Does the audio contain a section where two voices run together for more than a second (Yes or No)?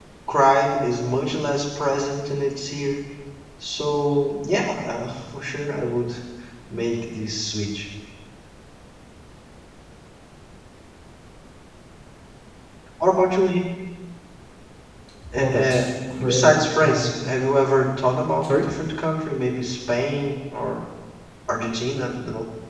Yes